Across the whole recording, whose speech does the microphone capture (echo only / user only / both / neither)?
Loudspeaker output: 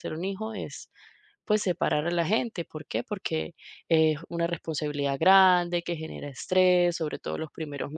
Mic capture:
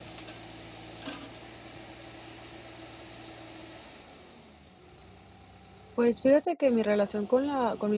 user only